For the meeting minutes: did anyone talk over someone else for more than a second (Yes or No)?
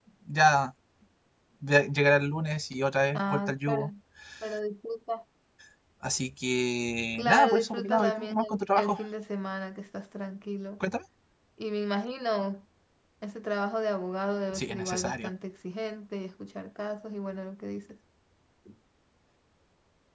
Yes